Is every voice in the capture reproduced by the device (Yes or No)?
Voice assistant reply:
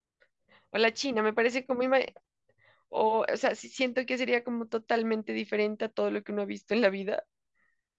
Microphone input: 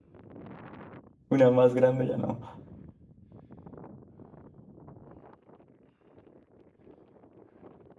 No